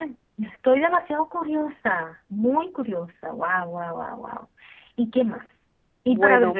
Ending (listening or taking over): listening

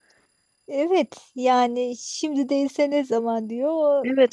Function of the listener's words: taking over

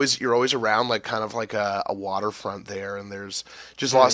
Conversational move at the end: taking over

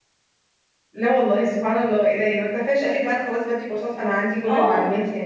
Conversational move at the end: taking over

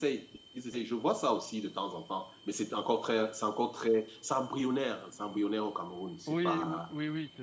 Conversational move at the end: taking over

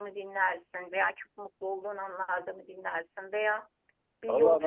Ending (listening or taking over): listening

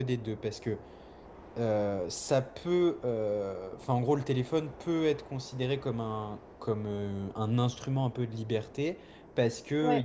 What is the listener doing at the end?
listening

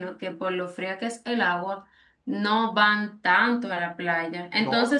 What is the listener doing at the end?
listening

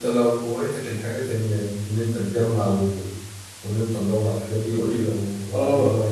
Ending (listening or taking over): taking over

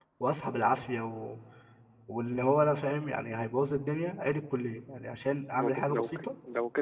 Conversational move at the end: taking over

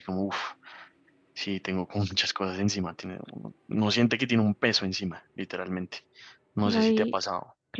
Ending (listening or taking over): taking over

